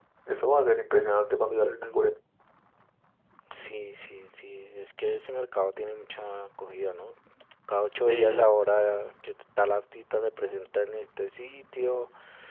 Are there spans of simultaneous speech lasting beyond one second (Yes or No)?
No